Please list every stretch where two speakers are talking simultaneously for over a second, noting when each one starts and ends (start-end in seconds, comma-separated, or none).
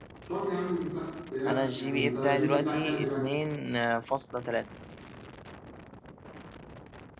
1.5-3.2